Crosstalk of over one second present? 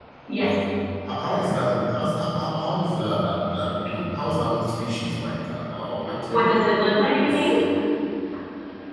No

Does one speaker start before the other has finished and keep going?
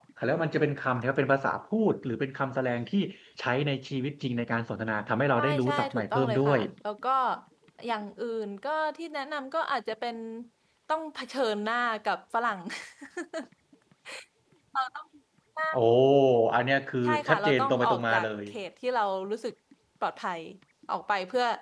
Yes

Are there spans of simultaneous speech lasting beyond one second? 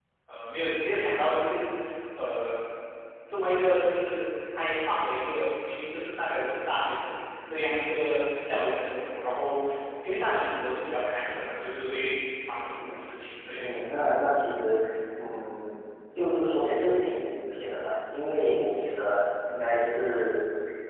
No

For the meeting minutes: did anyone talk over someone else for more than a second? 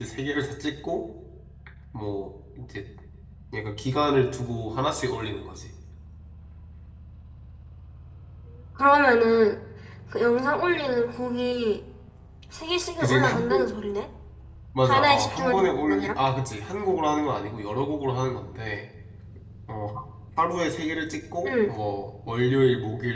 Yes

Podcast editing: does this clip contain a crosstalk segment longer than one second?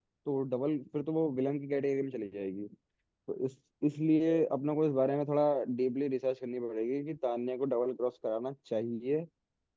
No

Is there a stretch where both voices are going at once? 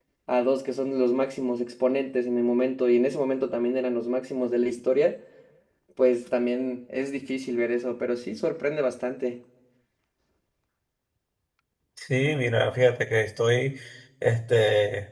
No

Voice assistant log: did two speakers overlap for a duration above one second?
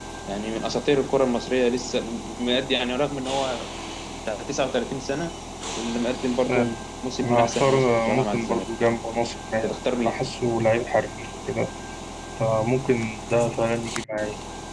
Yes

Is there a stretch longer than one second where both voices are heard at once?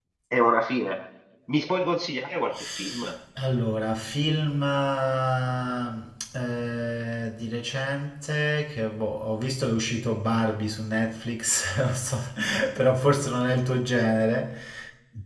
No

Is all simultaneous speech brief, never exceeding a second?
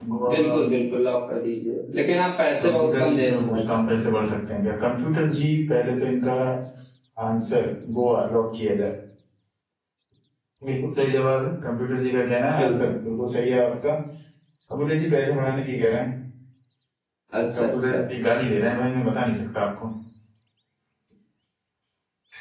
No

